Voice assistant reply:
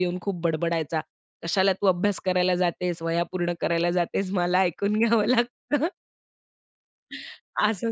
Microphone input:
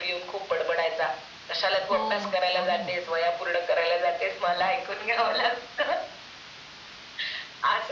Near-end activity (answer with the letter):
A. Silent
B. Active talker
B